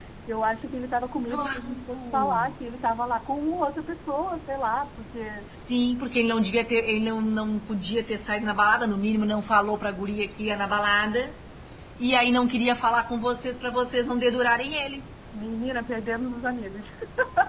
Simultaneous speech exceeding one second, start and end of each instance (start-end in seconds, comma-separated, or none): 1.3-2.5